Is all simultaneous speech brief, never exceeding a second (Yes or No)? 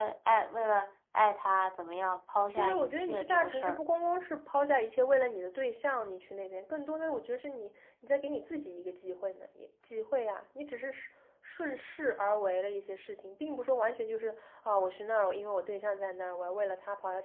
No